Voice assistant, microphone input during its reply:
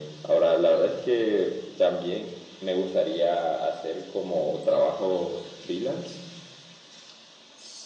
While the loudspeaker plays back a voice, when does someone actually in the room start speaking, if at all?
none

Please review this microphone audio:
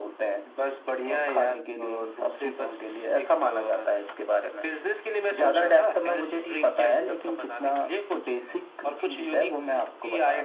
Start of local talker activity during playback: none

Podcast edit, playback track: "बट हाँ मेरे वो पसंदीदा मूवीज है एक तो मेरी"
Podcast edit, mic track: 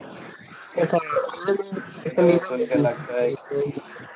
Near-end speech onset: 2 s

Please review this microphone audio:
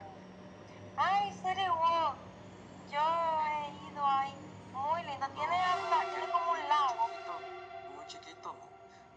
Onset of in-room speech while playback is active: none

